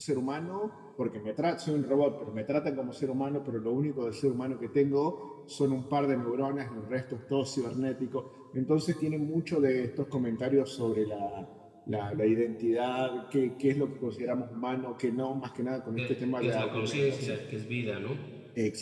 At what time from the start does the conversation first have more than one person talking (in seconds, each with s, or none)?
16.0 s